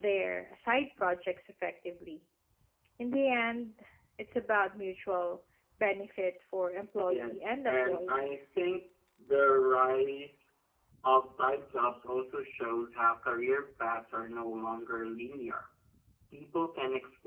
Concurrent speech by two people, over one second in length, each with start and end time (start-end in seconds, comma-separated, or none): 7.1-8.3